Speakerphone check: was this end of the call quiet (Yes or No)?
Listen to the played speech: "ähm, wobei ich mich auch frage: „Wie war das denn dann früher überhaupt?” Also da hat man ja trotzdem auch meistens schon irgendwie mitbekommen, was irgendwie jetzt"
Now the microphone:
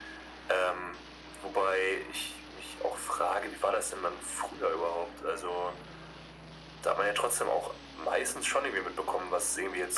Yes